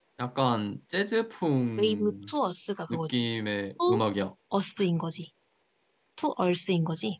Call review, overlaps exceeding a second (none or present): none